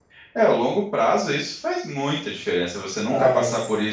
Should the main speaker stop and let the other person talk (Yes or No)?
No